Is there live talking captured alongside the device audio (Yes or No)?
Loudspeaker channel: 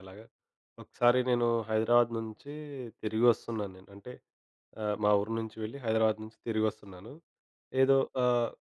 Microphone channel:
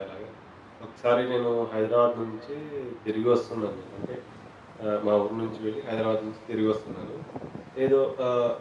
No